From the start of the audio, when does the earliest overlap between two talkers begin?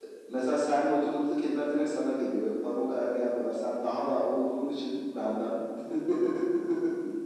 none

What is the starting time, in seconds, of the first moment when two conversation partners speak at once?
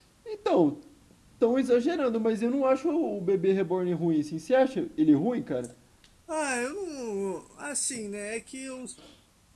none

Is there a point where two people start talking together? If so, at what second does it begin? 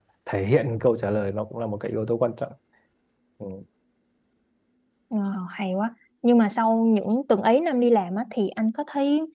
none

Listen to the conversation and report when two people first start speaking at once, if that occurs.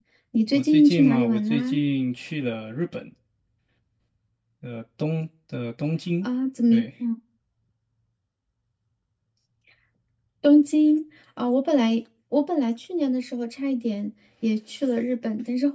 0.5 s

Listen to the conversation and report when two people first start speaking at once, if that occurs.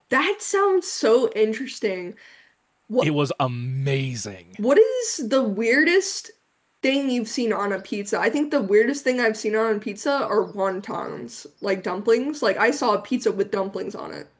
none

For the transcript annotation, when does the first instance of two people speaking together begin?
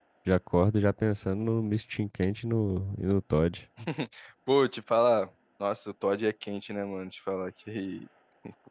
none

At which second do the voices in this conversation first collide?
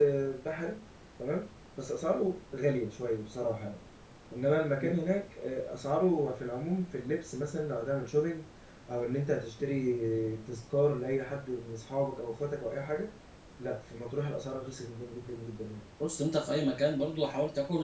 none

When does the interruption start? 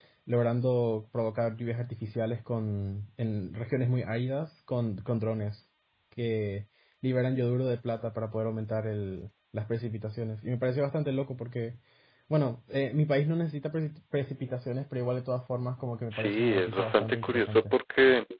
16.1 s

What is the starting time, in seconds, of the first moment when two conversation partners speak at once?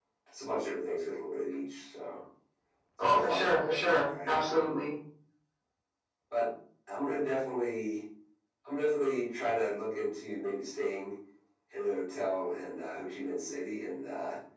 3.1 s

